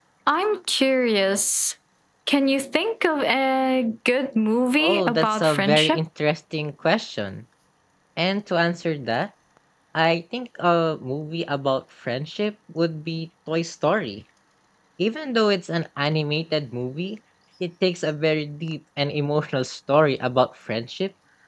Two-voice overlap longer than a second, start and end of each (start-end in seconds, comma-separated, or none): 4.8-6.0